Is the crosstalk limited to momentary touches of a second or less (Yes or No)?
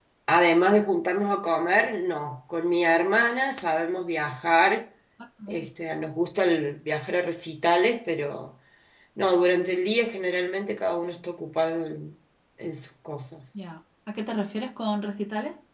Yes